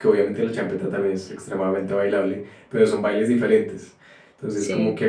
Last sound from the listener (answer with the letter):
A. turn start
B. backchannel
B